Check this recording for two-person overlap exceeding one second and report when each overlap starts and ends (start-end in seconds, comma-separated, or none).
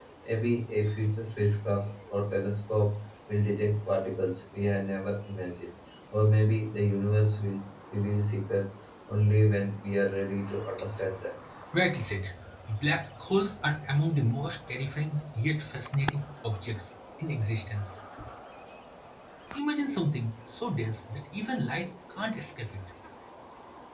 none